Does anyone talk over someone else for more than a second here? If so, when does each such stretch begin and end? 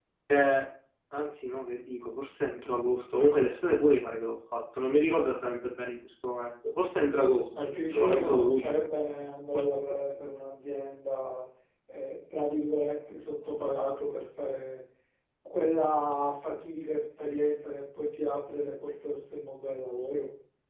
7.5-8.8

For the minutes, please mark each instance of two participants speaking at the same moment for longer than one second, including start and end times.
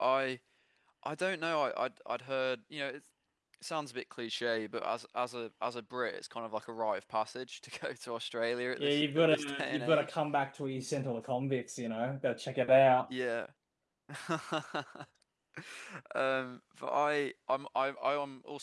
8.8-10.2

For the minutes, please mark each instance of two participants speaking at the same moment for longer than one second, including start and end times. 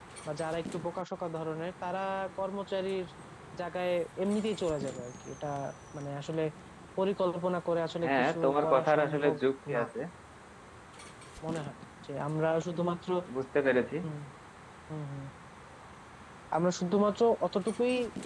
8.0-9.3

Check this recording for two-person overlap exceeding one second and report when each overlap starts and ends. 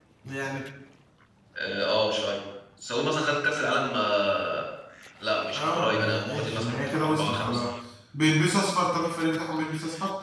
5.6-7.6

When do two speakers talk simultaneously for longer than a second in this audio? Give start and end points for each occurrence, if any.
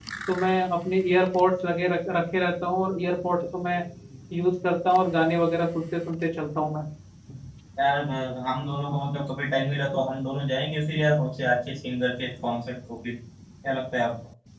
none

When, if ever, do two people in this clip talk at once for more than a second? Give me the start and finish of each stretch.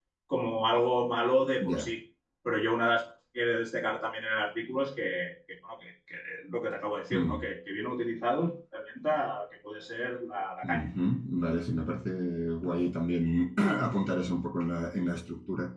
none

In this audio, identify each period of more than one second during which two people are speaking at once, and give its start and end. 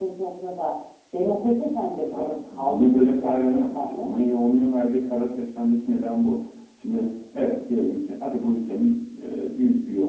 2.1-4.1

